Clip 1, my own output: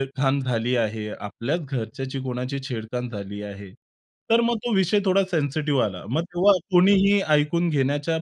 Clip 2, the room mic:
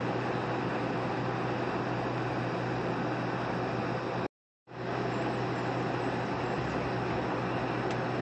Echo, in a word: none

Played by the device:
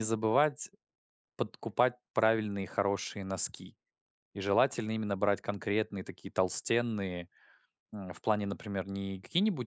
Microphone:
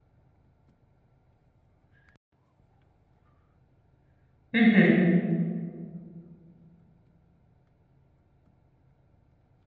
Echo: none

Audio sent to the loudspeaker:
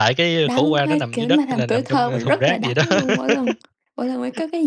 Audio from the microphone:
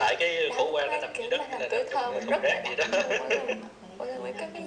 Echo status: present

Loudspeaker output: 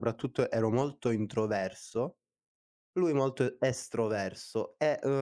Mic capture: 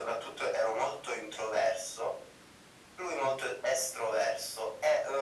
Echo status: present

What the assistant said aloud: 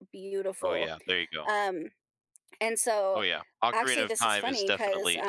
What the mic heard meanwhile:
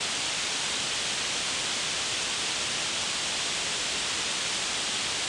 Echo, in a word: none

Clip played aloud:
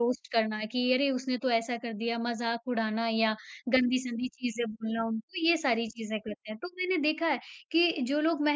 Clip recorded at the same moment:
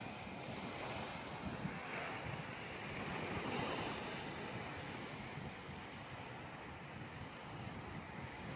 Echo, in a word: none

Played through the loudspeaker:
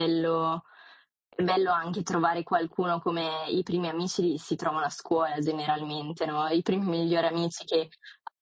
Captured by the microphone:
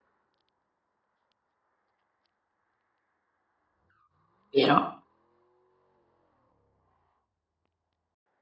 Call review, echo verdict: none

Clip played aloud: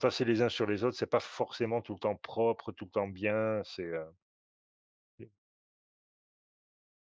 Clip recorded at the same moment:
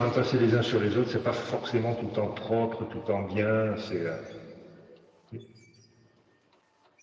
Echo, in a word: present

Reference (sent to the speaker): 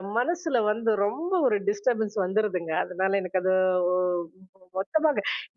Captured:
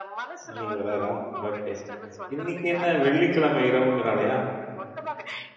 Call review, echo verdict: present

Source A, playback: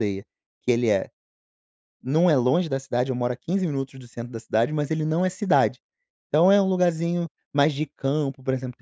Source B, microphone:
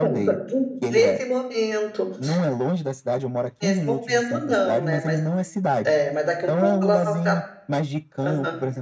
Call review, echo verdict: present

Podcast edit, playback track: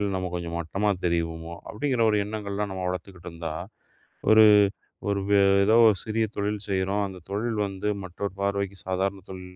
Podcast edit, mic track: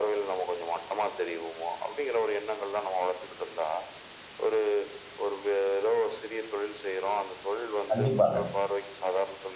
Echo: present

